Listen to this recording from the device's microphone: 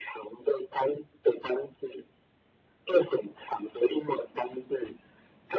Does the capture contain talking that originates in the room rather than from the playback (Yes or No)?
No